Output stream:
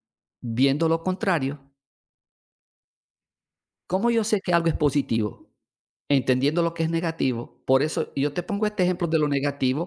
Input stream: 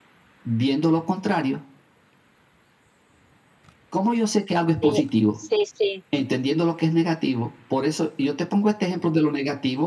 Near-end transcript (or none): Sí, sí, sí.